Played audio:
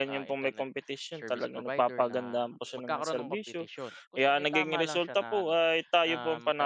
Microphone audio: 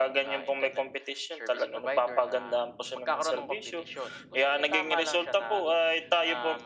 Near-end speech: none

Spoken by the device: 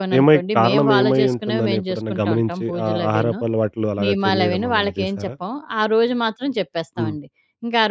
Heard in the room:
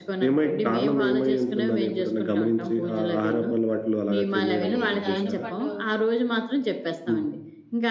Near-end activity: present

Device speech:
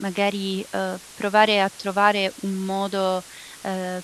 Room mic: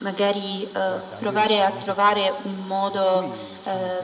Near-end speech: present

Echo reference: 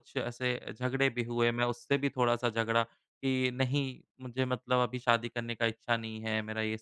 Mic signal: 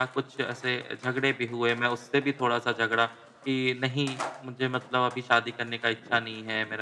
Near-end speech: none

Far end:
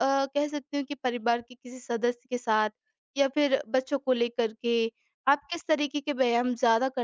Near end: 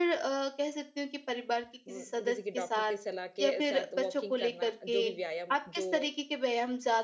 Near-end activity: present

